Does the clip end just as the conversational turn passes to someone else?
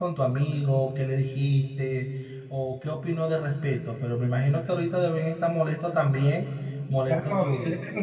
Yes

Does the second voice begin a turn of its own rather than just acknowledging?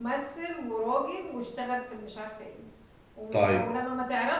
No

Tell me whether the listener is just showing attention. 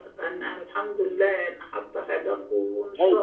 No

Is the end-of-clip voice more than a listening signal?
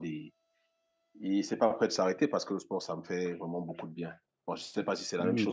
Yes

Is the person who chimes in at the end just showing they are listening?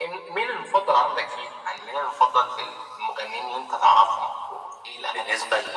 No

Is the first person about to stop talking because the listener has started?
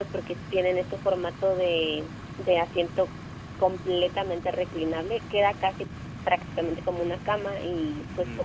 No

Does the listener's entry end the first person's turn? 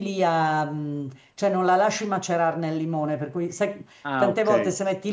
No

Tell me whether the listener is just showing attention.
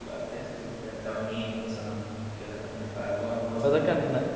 No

